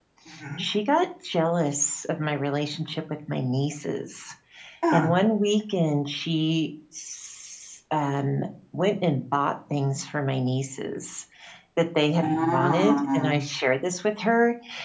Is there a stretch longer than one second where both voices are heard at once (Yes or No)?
Yes